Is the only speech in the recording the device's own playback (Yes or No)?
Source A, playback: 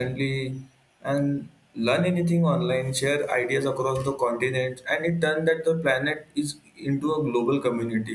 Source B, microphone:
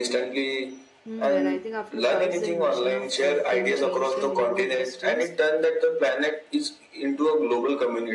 No